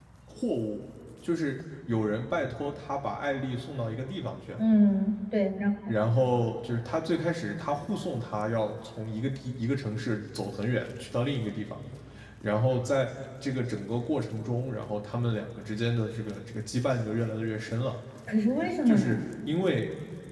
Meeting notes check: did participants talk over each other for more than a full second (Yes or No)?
No